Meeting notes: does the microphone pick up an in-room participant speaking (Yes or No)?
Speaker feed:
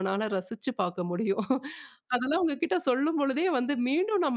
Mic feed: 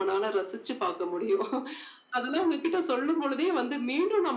No